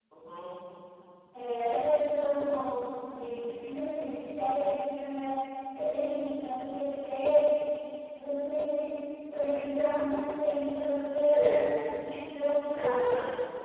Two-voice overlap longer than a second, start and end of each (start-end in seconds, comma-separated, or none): none